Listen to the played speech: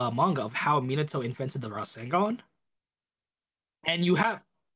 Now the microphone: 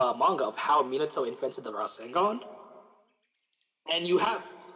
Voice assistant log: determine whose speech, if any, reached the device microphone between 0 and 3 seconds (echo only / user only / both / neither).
echo only